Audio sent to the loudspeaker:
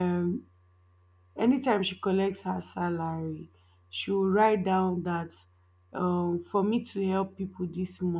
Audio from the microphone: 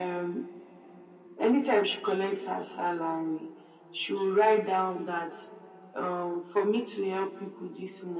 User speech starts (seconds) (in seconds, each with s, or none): none